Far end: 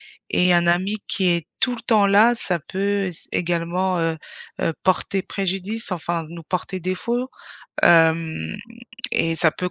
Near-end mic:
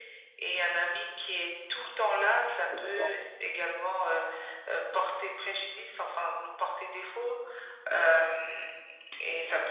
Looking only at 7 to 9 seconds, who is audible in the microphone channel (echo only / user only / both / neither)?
echo only